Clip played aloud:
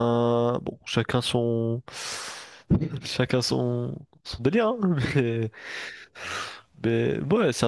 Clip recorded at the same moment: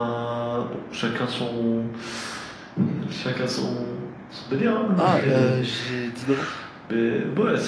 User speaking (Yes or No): Yes